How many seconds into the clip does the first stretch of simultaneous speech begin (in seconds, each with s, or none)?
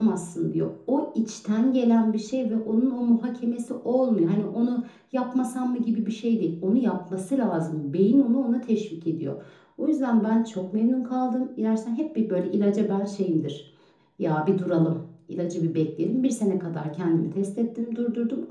none